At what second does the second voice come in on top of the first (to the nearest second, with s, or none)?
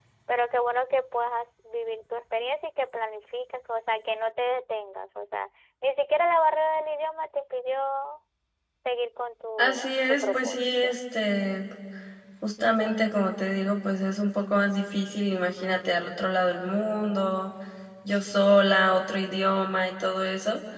10 s